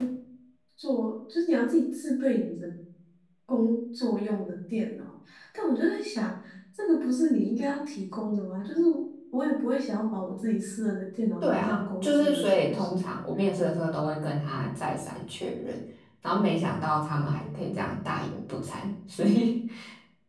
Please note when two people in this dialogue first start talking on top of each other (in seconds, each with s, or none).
11.4 s